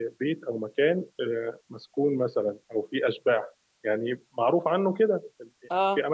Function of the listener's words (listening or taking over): listening